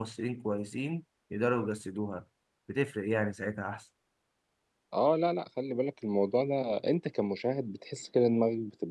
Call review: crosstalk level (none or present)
none